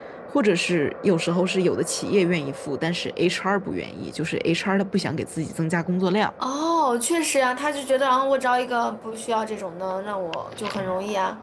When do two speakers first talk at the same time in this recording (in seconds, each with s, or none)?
none